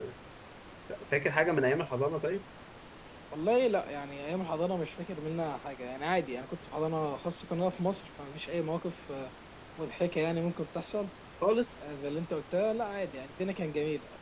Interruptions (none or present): none